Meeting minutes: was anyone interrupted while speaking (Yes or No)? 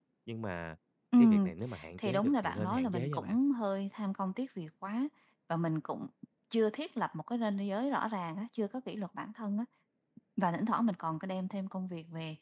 Yes